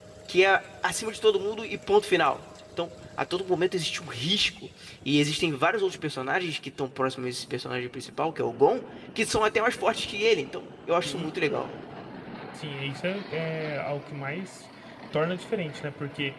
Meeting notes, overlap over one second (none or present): none